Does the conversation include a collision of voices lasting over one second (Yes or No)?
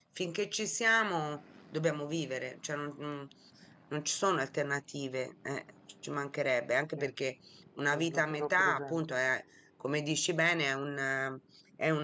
Yes